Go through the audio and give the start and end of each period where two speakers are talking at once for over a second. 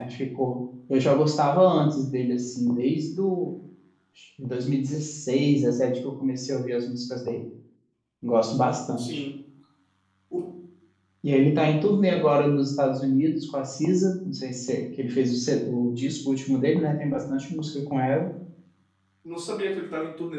none

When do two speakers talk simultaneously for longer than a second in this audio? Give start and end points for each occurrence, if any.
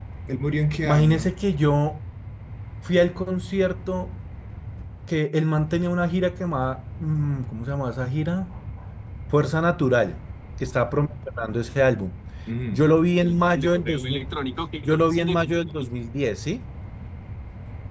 none

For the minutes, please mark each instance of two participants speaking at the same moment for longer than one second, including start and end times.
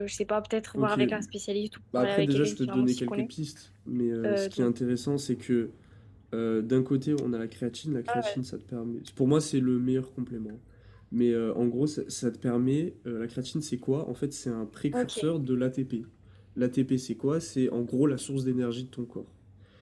2.0-3.3

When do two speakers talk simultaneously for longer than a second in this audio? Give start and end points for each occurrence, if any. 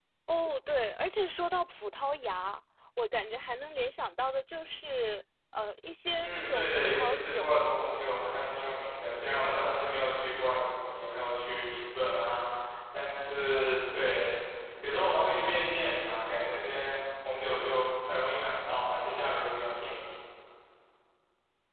6.2-7.6

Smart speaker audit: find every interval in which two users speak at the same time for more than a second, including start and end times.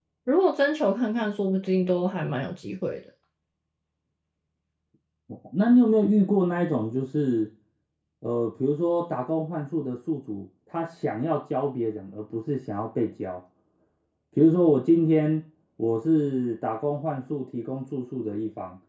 none

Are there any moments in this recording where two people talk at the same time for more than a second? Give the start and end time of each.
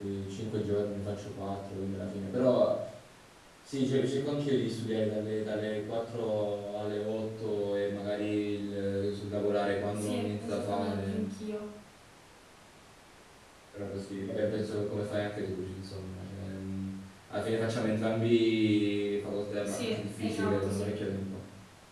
9.9-11.3, 19.6-20.9

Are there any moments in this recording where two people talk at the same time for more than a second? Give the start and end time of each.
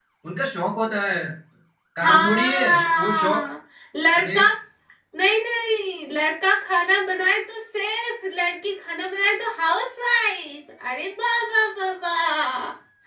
2.0-3.5

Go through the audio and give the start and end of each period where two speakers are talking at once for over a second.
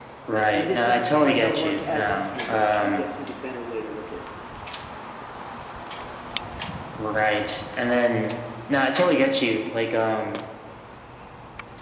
0.6-3.1

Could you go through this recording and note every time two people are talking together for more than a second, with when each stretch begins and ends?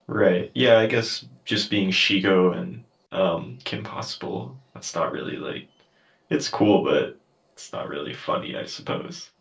none

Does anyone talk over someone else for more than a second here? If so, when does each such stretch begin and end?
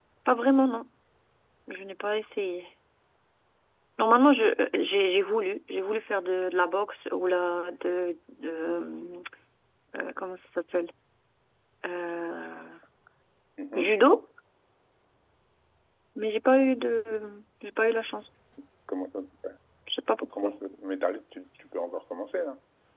none

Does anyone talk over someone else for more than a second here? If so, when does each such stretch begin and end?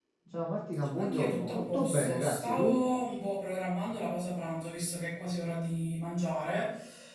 1.0-2.7

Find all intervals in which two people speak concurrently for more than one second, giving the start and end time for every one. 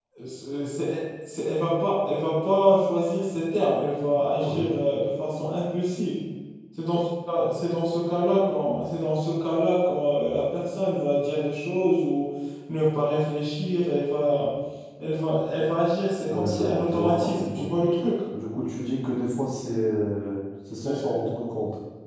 16.3-17.7

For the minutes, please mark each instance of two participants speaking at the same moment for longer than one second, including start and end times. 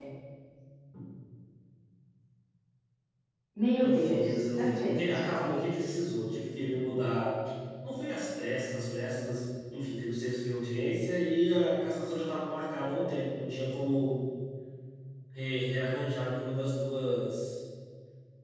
3.8-5.8

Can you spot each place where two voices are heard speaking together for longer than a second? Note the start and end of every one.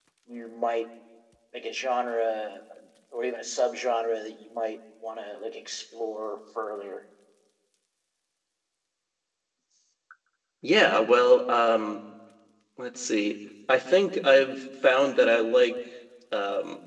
none

